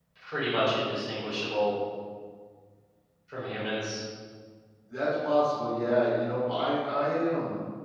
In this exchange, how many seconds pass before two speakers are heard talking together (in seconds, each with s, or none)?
none